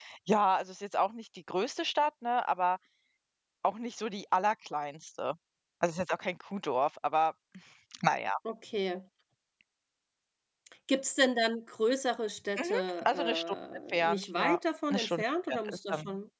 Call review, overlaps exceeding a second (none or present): present